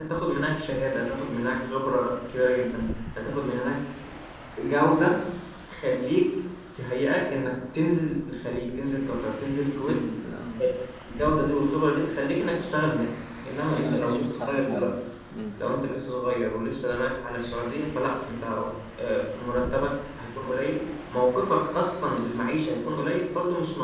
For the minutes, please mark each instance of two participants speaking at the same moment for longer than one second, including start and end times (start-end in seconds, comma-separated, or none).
13.4-14.9